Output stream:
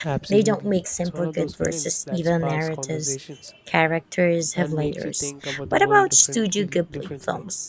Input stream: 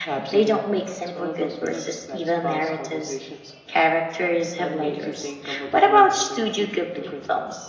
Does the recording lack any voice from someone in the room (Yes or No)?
Yes